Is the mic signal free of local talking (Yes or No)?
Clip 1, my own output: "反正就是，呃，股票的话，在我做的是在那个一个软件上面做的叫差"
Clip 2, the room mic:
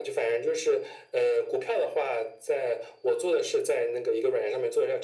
Yes